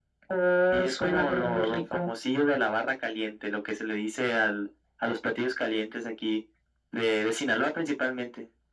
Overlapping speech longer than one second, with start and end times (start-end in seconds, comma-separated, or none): 0.7-2.1